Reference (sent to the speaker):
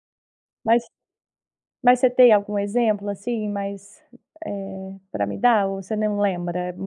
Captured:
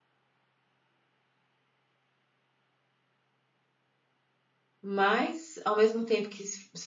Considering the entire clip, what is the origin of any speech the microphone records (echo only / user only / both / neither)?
user only